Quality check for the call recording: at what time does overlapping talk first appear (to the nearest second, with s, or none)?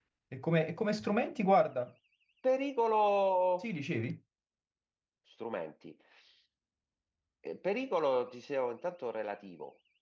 none